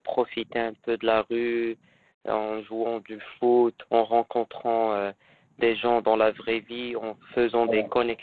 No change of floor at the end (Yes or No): Yes